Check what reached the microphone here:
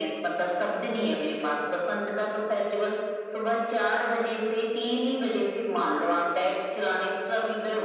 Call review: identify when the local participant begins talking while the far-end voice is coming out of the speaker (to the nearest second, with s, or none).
none